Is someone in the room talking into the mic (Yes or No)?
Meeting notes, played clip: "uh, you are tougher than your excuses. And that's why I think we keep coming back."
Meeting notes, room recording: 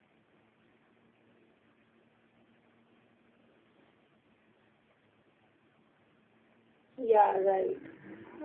Yes